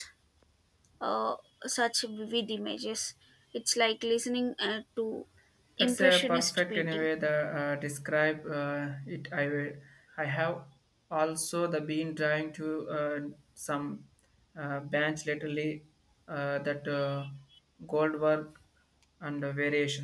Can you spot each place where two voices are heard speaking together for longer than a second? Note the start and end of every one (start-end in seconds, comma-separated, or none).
5.8-7.1